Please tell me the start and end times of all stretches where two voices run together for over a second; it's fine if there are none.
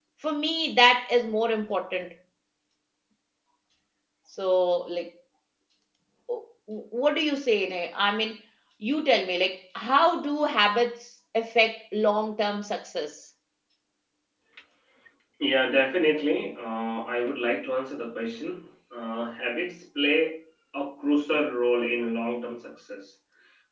none

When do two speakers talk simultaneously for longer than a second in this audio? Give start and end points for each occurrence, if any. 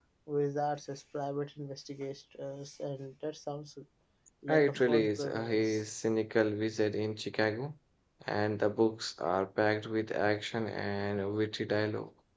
4.5-5.8

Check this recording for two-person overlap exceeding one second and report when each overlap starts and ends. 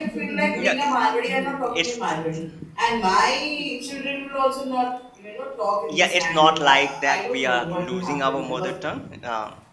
5.9-8.7

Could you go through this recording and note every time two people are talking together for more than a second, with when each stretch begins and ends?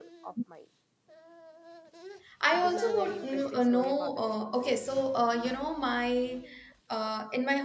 2.5-4.5

